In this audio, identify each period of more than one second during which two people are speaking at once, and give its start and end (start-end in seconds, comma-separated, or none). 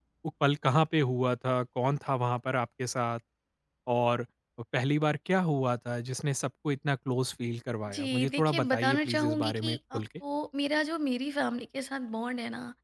7.9-10.0